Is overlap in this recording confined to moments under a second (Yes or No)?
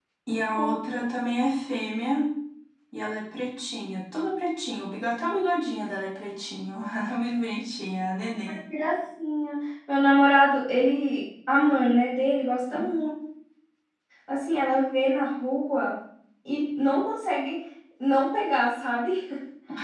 Yes